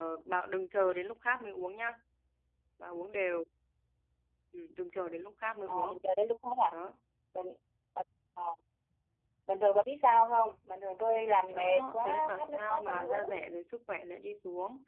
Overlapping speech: Yes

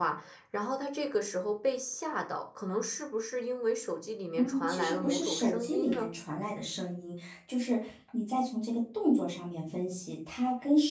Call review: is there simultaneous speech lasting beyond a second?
Yes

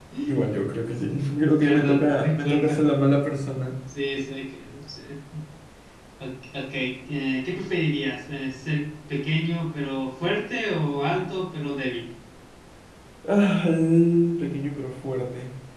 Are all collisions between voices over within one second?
No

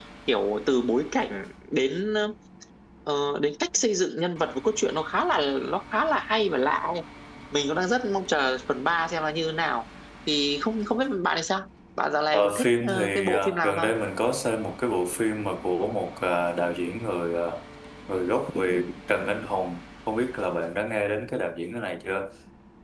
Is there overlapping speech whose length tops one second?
Yes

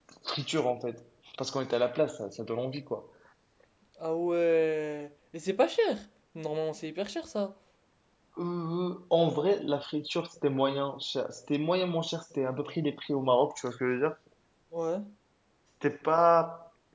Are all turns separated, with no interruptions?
Yes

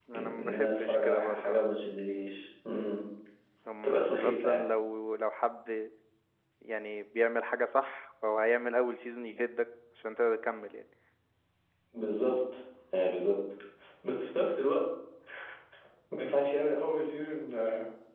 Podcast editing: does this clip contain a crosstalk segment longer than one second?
Yes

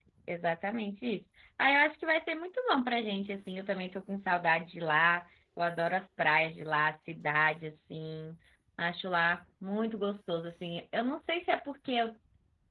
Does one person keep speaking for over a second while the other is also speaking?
No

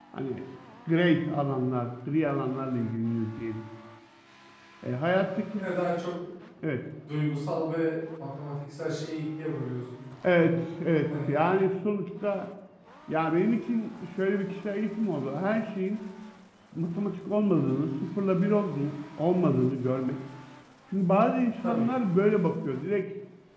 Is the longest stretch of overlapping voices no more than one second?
Yes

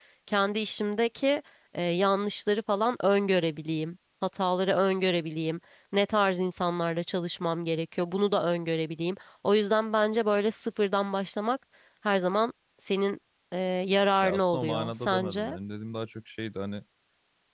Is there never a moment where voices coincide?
No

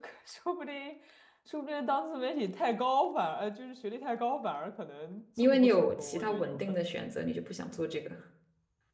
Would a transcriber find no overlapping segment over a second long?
No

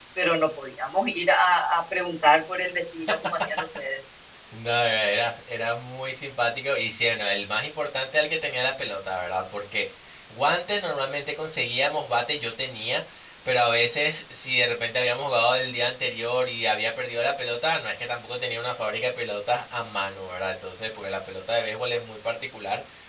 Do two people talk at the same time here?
No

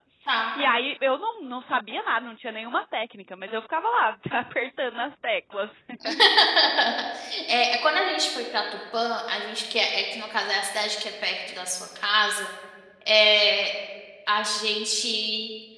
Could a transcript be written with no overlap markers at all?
Yes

